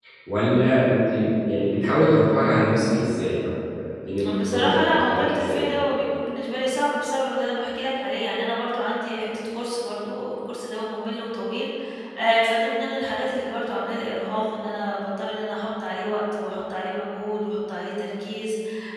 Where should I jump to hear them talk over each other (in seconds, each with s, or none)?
4.5 s